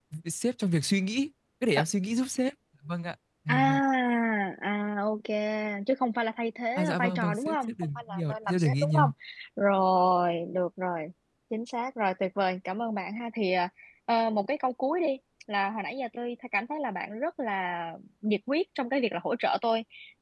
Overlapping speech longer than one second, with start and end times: 6.8-9.0

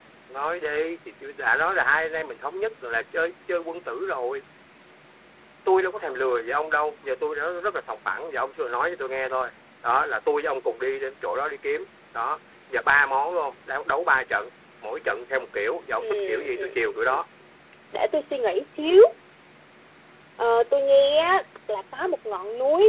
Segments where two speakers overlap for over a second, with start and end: 16.0-17.2

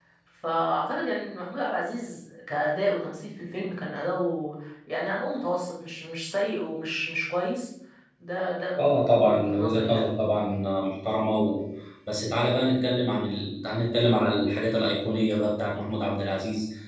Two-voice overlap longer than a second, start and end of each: 8.8-10.0

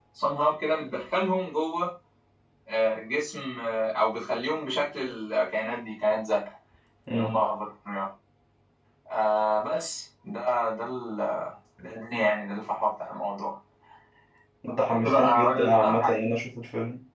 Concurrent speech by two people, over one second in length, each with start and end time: 14.9-16.1

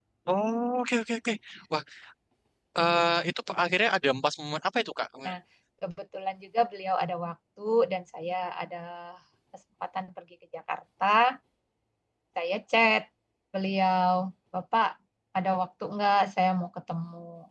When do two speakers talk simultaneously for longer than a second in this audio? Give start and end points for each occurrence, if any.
none

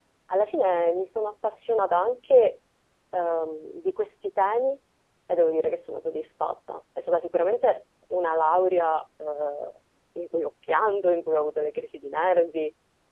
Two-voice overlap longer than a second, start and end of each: none

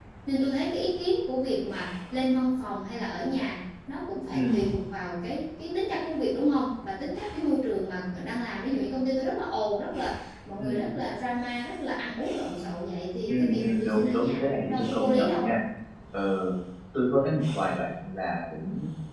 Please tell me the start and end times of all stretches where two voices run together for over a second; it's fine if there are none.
13.3-15.5

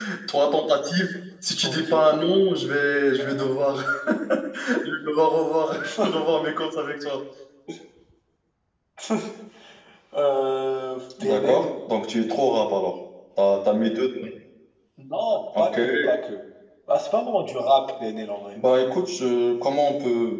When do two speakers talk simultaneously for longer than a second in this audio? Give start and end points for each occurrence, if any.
none

